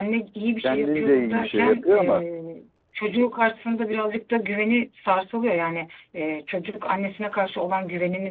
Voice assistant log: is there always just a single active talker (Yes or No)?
No